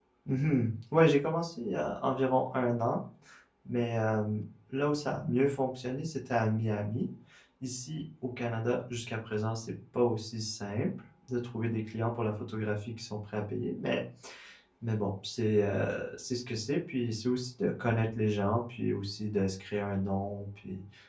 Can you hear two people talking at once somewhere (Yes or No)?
No